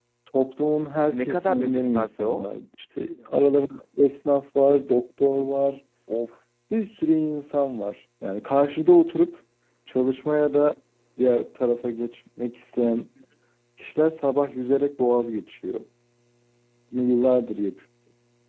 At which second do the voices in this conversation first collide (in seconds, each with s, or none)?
1.1 s